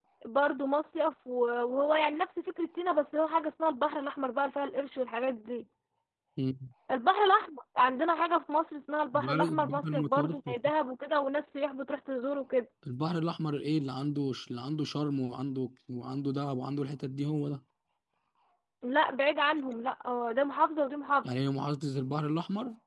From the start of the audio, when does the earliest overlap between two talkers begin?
9 s

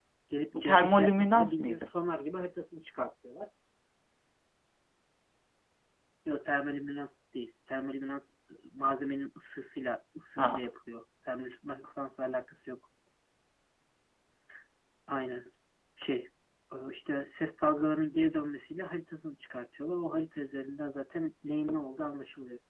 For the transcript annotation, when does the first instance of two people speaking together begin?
1 s

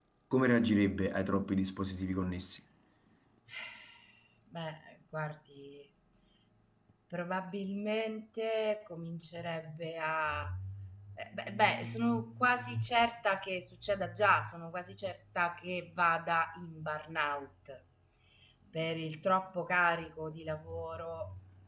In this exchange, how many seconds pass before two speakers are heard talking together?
none

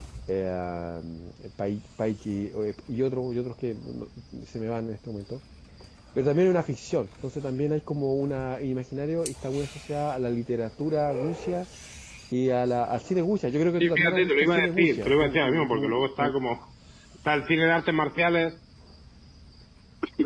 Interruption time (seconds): 14 s

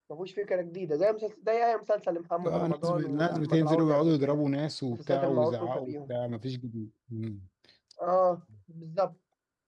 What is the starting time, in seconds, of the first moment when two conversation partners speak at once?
2 s

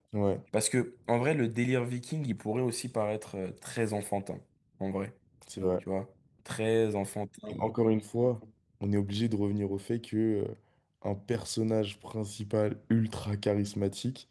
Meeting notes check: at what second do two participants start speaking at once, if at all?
none

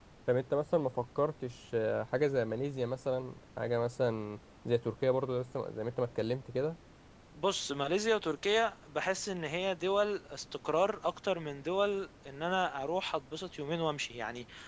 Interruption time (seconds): none

